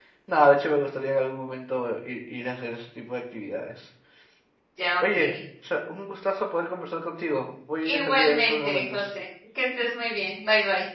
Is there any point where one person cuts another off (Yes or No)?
Yes